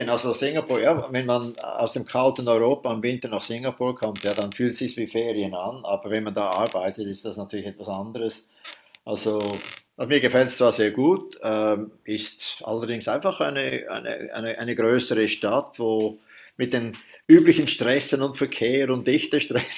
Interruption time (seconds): none

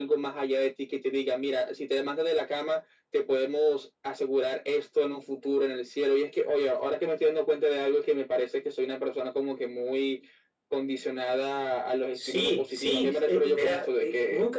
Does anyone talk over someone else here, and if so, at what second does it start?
12 s

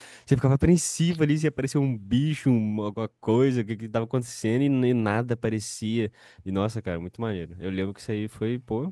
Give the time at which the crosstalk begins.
none

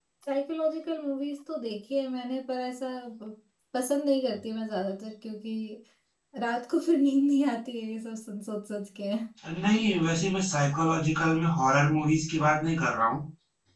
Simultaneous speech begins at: none

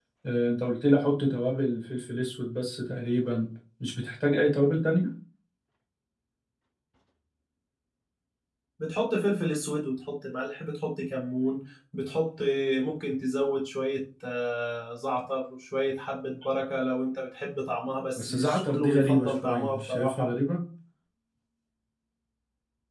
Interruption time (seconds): 18 s

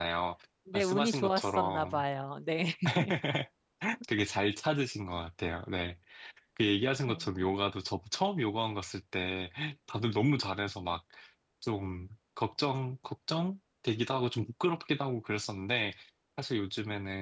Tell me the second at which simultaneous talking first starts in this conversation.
1 s

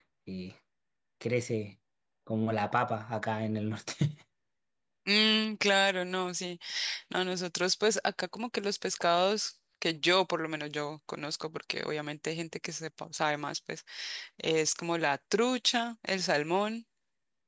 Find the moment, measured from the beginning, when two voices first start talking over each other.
none

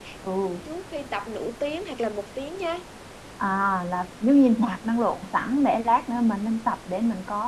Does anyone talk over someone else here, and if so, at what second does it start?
none

